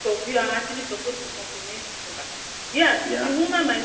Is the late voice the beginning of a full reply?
No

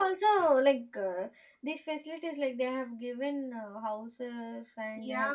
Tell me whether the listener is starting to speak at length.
Yes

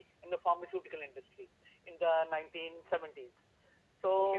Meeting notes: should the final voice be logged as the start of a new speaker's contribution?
No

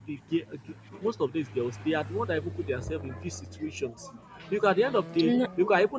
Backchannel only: Yes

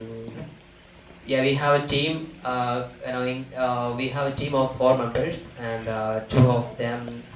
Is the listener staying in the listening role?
Yes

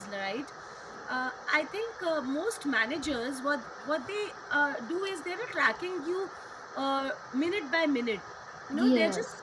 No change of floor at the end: Yes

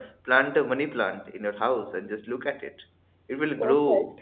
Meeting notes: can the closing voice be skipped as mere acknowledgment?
Yes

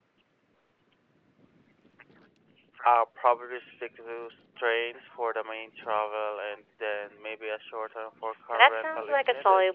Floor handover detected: Yes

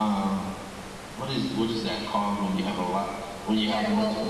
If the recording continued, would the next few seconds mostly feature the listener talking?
Yes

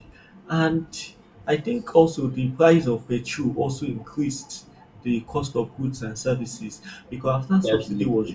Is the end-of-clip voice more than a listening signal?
No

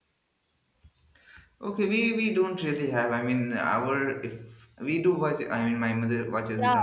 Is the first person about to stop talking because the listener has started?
Yes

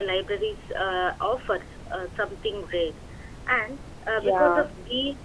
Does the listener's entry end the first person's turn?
No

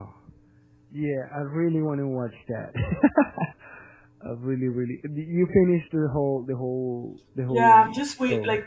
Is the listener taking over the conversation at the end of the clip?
Yes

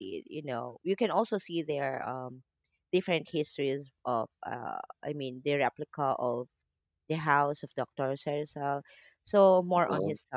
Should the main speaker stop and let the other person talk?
No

